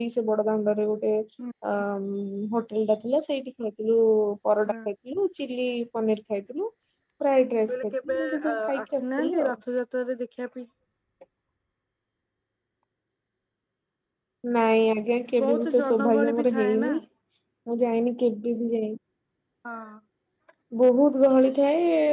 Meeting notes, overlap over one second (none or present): present